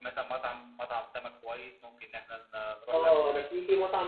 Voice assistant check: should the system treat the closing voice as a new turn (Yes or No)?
Yes